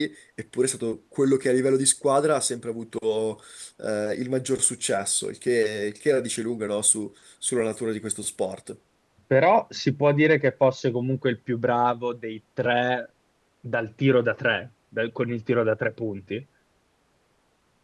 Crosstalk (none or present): none